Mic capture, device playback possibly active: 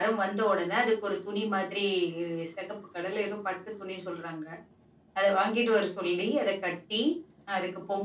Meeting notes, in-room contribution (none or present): none